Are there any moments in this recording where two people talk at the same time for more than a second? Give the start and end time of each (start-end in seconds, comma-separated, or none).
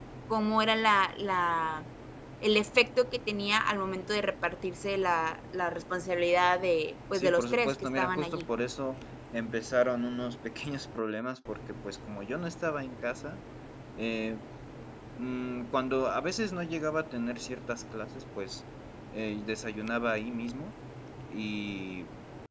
7.1-8.4